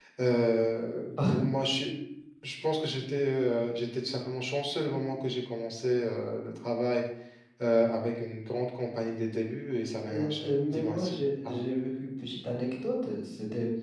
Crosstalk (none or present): present